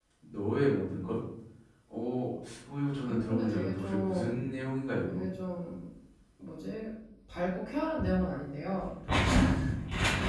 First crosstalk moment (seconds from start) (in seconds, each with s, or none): 3.0 s